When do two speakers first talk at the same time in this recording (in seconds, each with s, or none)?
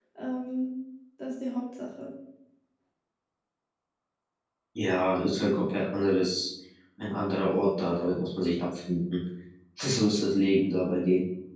none